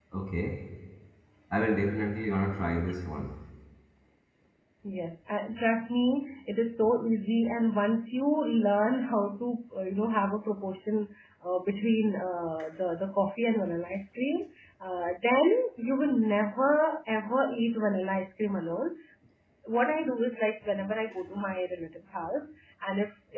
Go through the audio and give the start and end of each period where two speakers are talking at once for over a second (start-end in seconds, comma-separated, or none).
none